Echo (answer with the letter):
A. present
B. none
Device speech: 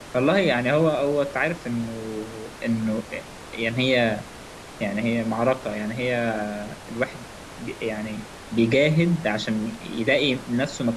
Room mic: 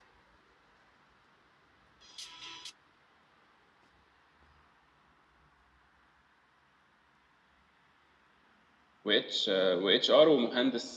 B